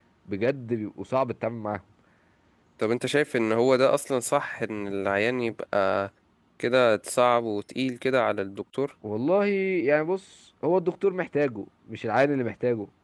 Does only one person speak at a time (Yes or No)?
Yes